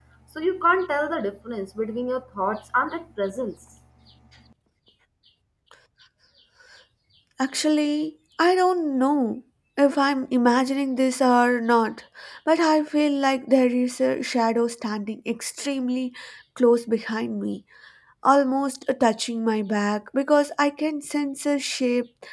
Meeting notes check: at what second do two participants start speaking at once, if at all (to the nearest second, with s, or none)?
none